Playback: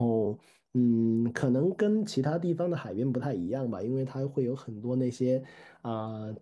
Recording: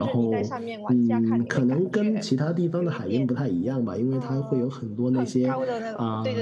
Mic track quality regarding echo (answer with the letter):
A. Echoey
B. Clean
A